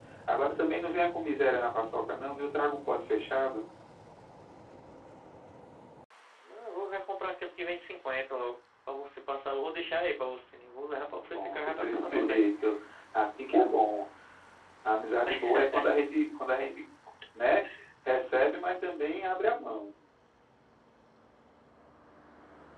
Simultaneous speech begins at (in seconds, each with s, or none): 11.2 s